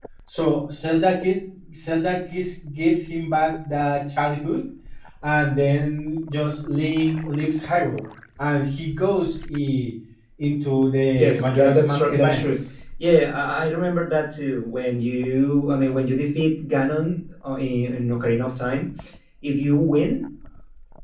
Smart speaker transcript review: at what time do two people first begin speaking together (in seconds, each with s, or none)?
11.2 s